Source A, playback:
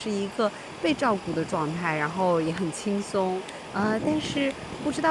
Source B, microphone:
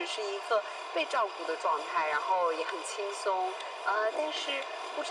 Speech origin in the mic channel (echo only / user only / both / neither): echo only